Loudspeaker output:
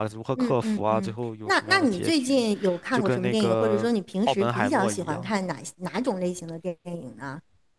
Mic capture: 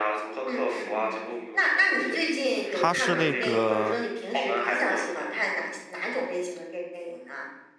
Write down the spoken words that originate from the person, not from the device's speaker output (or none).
他是那个。